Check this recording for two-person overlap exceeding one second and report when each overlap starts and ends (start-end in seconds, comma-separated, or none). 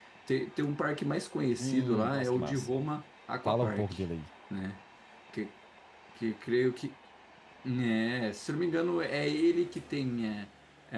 1.6-2.8